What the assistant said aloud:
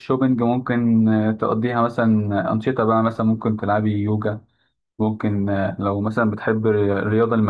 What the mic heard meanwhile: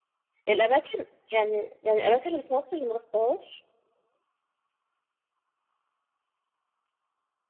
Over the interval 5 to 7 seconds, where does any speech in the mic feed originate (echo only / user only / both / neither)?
neither